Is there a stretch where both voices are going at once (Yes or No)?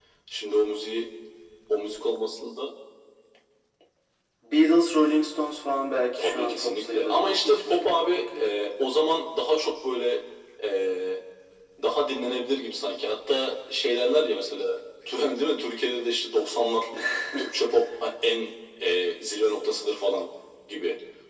Yes